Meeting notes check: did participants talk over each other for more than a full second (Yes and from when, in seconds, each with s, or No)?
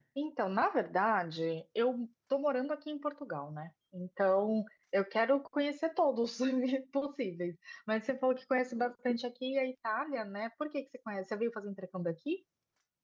No